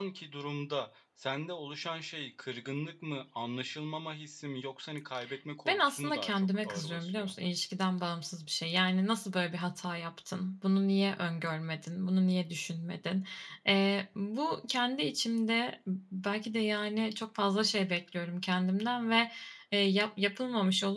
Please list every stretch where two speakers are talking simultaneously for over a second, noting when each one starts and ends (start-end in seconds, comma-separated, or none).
5.7-7.3